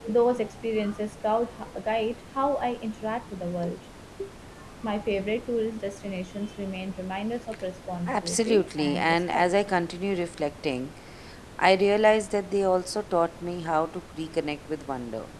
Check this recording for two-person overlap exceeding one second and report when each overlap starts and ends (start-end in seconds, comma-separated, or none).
8.1-9.4